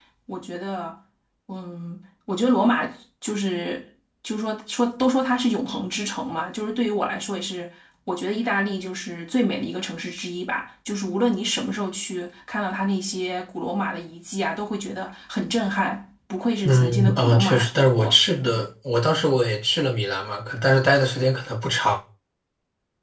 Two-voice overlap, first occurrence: 16.6 s

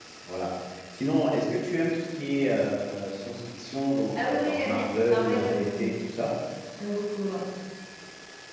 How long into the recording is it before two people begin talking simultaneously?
4.2 s

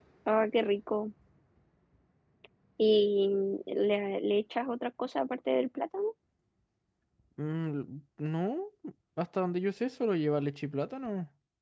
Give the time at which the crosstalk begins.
none

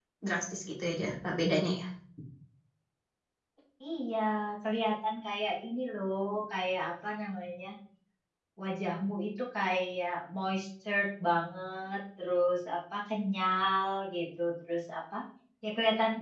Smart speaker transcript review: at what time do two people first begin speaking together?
none

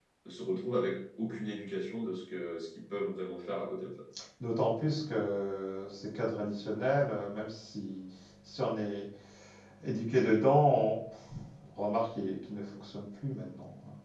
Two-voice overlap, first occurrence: none

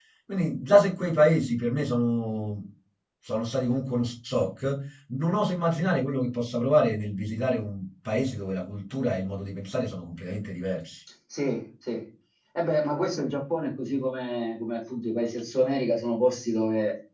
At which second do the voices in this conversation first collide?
none

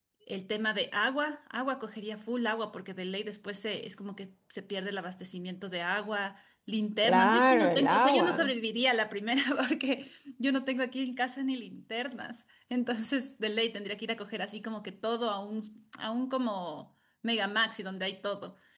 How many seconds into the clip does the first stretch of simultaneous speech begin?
7.0 s

